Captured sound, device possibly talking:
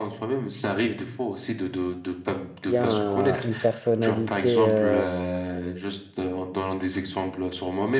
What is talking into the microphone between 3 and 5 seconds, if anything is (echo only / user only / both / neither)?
both